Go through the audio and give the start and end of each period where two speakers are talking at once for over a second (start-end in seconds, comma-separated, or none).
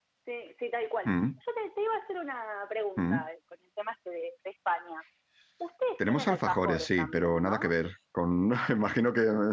6.1-7.7